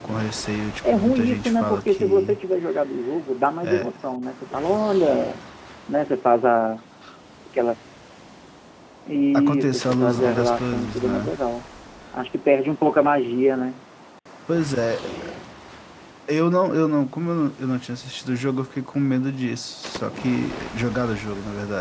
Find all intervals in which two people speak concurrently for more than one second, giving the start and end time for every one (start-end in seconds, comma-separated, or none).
0.9-2.4, 9.3-11.3